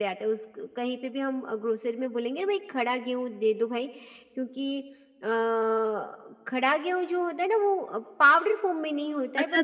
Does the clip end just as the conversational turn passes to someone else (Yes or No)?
Yes